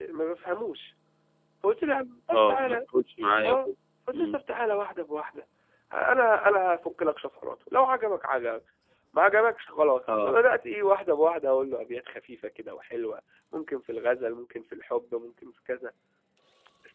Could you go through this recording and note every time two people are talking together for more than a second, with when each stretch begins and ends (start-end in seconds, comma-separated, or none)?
none